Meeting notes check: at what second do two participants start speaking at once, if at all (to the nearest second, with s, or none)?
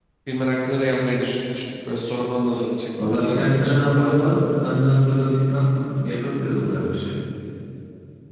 3 s